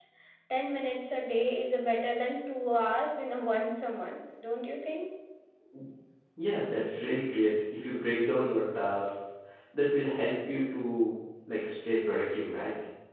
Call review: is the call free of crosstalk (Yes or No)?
Yes